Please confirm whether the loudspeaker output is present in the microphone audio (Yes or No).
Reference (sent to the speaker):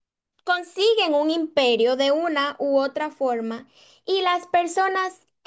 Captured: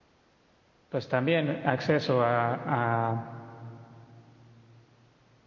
No